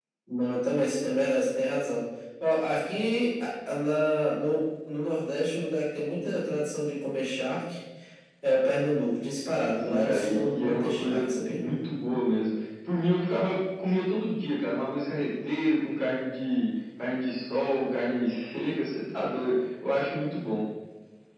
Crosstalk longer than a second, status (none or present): present